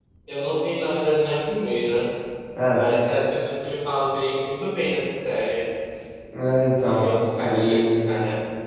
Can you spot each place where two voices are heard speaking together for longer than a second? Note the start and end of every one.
6.8-8.0

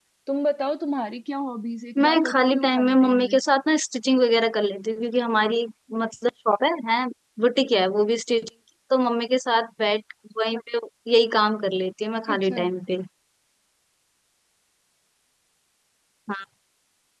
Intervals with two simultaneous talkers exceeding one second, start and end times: 2.0-3.4

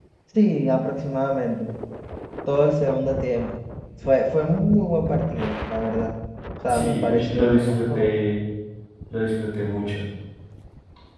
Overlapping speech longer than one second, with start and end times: 6.7-8.1

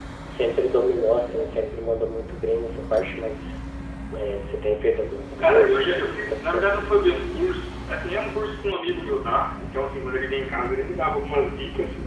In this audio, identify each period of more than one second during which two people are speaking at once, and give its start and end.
5.4-6.7

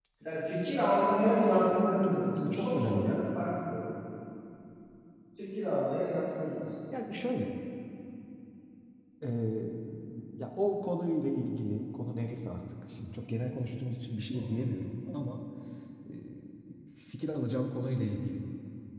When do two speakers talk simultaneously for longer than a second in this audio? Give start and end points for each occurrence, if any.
1.0-3.2

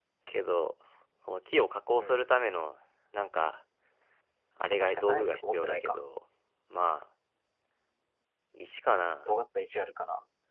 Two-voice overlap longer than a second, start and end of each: 4.7-6.0

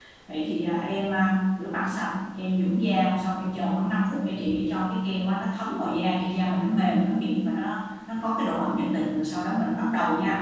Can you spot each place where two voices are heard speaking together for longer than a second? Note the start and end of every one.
none

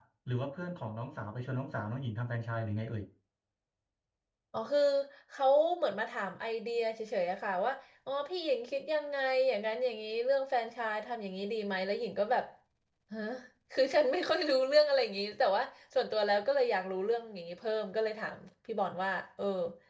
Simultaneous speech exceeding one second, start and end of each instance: none

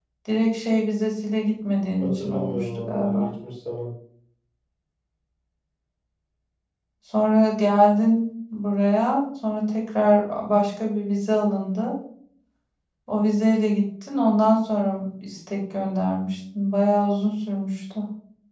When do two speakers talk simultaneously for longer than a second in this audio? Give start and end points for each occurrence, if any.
2.0-3.3

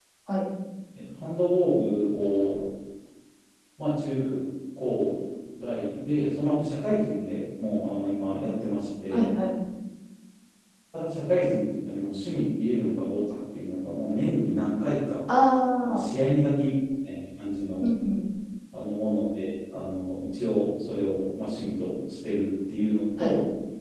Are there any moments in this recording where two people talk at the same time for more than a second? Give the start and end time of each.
none

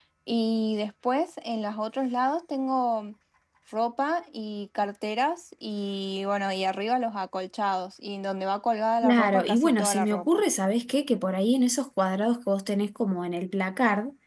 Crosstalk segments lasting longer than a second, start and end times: 9.0-10.4

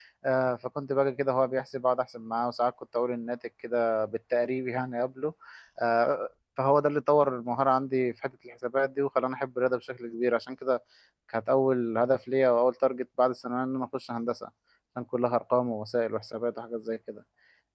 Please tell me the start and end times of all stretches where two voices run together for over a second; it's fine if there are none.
none

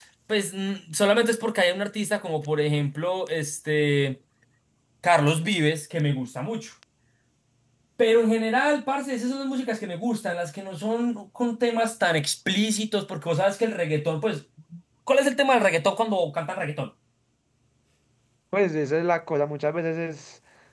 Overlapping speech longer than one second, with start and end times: none

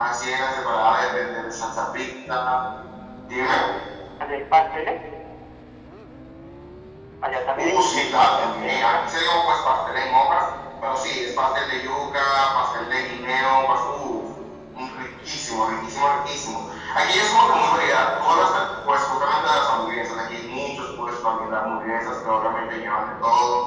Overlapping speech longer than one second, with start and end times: 7.6-9.1

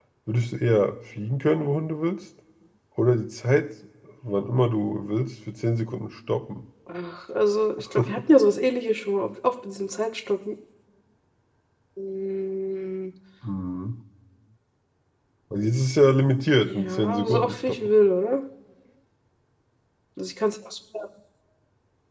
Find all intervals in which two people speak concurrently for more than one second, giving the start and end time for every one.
16.6-17.9

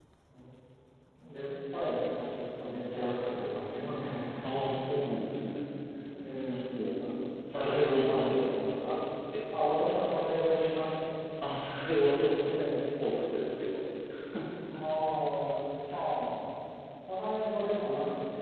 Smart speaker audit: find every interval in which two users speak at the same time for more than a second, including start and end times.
7.5-8.8

